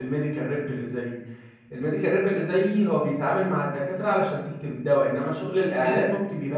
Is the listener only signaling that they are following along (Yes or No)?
Yes